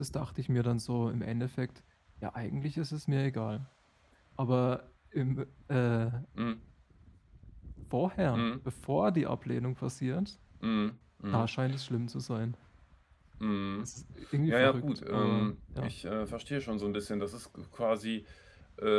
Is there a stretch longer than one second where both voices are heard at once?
Yes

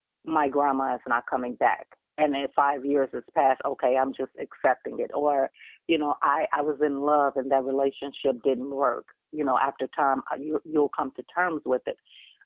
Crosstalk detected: No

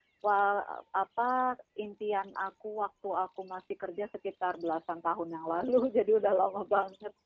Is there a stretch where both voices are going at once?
No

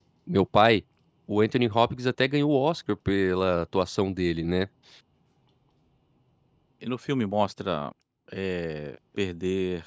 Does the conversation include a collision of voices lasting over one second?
No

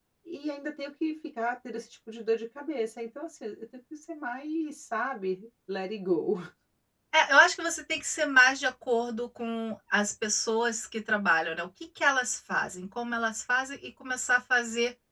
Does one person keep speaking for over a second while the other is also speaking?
No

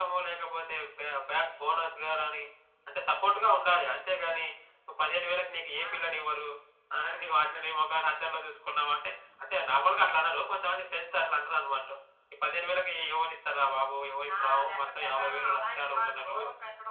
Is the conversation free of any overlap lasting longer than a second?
No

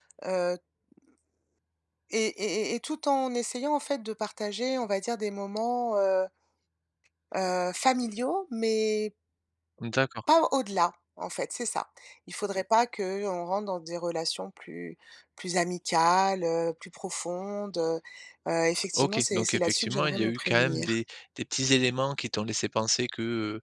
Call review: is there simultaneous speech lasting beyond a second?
Yes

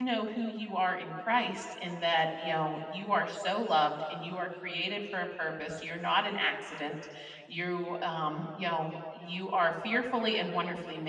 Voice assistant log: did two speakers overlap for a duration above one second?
No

